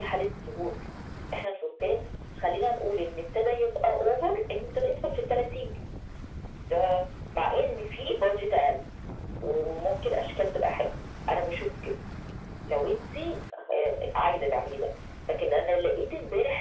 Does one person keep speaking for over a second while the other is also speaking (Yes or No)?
No